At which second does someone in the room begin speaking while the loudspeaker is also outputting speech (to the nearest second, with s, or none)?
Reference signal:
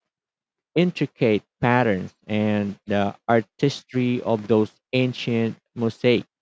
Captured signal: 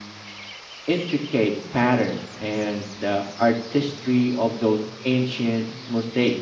none